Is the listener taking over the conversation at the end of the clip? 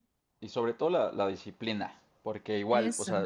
No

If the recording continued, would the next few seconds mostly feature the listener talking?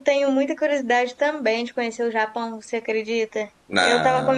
No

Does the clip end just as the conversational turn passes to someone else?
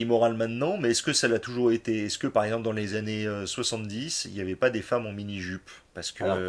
No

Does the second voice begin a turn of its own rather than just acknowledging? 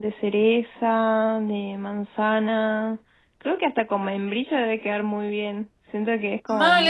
Yes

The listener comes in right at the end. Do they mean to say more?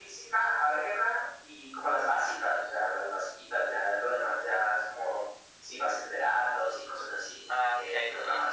Yes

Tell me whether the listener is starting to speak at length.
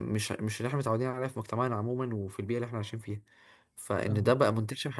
No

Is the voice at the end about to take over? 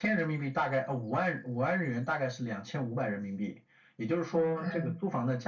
No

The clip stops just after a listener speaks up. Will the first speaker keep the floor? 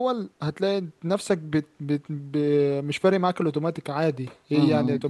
No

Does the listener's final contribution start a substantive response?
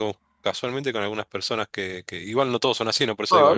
Yes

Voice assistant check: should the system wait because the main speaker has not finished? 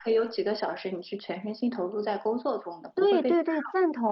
No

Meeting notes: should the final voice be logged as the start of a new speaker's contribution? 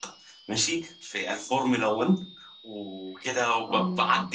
No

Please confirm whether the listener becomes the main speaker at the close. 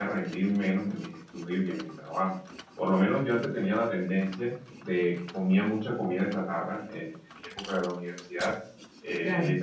No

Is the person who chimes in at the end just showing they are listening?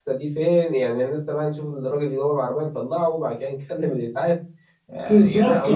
No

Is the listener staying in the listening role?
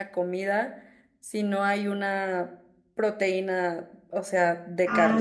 No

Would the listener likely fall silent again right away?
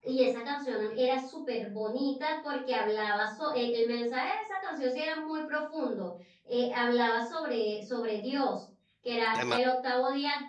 Yes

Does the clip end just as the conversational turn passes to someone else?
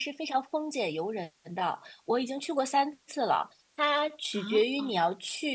No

